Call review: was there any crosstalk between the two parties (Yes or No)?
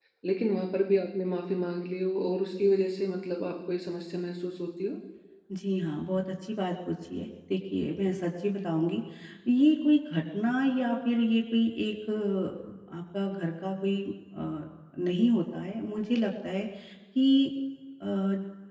No